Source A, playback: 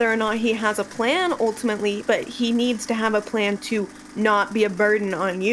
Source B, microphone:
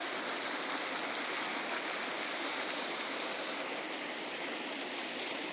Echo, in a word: none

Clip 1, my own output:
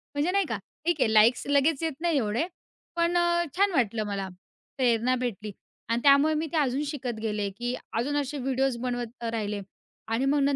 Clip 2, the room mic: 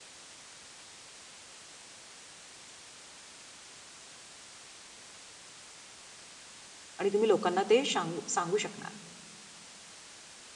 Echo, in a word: none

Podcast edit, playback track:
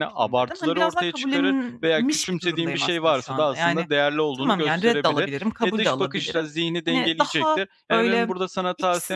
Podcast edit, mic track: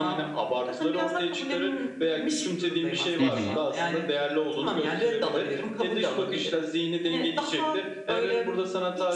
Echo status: present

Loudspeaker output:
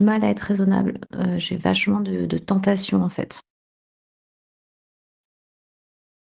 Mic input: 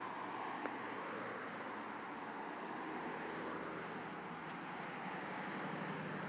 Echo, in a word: none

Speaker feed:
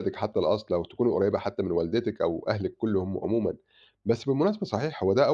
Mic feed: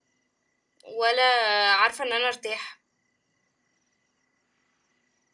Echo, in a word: none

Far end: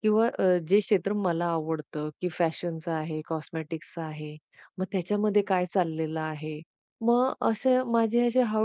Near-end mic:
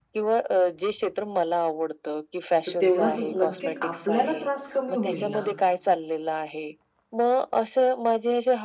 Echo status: present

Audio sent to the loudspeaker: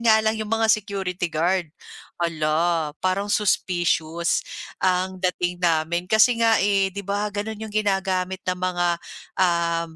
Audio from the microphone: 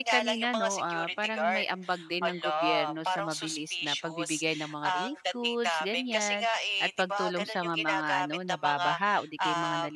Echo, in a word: present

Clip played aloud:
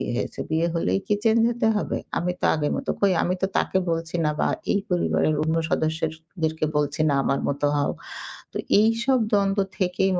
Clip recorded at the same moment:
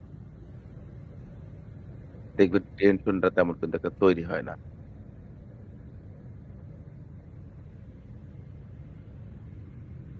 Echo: none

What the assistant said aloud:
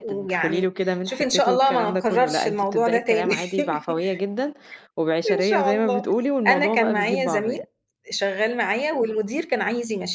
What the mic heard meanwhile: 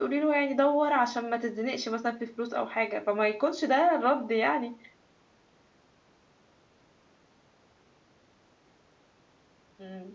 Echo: none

